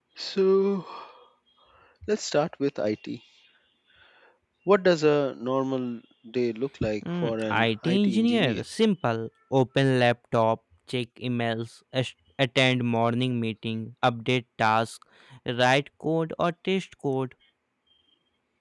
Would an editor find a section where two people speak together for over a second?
Yes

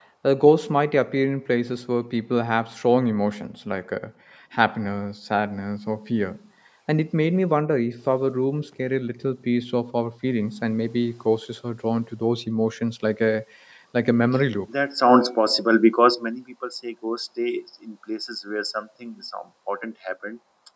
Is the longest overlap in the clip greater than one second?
No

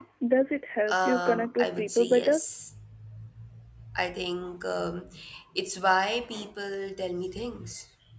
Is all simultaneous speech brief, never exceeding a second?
No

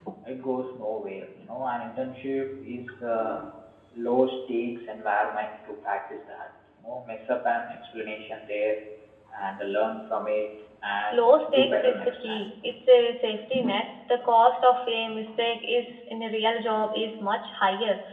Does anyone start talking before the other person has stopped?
Yes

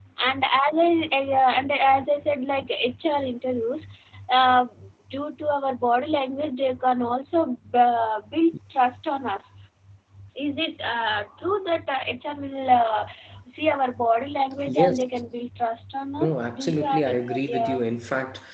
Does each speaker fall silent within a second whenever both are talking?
No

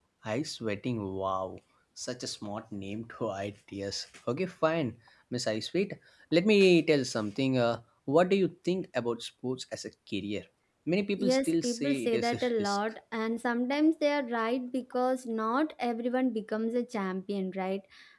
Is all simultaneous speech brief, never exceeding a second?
No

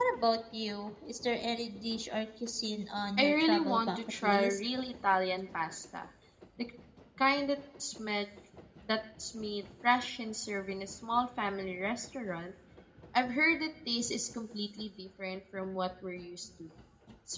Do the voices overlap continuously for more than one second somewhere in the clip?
Yes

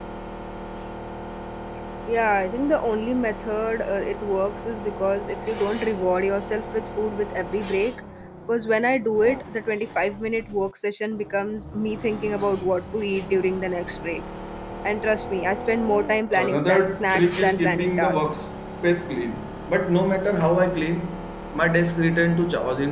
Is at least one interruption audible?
Yes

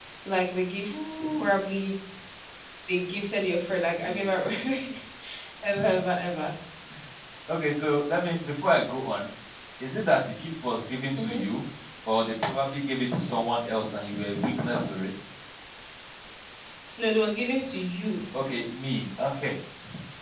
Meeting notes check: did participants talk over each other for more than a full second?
No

